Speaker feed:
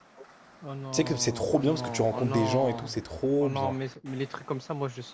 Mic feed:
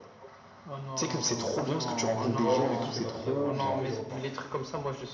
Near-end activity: present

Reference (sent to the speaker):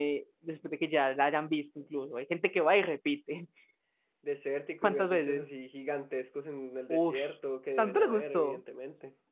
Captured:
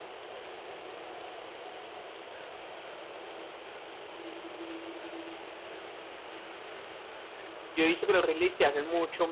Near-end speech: present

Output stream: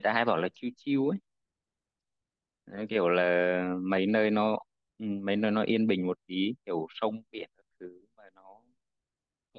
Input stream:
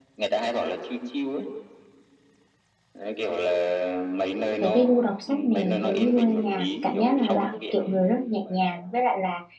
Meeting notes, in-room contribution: present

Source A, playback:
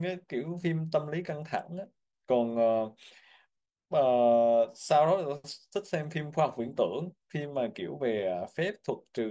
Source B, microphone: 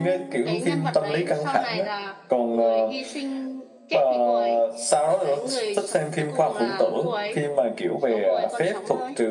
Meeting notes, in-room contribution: present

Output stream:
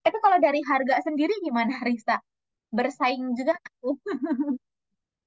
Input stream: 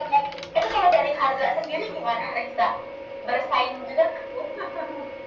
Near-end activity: none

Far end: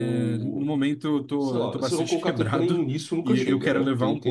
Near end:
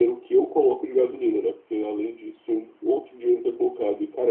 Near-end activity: present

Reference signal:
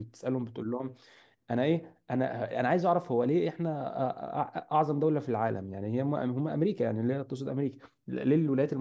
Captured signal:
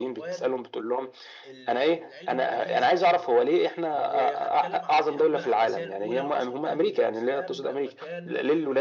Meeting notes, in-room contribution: present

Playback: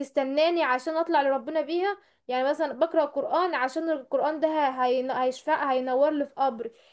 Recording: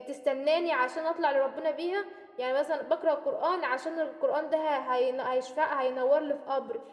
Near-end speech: none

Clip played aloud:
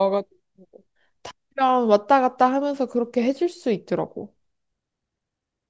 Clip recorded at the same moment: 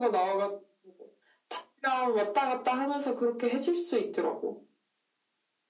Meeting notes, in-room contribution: none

